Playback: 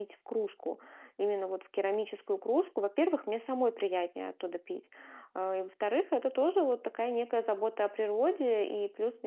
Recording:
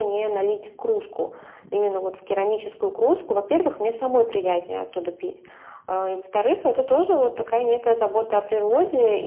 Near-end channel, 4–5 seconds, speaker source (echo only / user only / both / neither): echo only